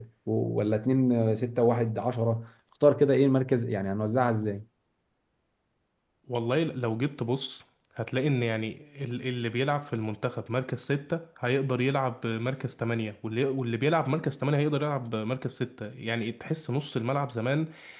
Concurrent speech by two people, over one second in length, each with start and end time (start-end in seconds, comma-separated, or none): none